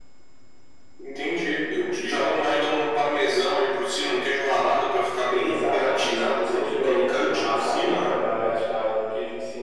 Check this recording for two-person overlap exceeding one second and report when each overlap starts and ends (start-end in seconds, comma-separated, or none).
5.3-8.1